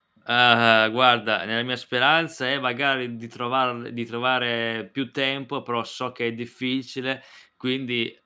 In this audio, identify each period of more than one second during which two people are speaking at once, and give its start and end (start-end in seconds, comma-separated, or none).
none